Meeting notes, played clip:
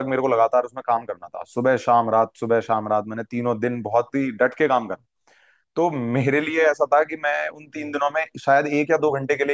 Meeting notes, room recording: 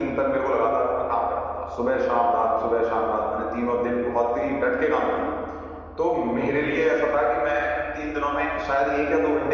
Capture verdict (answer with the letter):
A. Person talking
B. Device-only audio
B